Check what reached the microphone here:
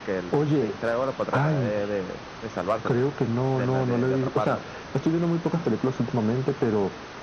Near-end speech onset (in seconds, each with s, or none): none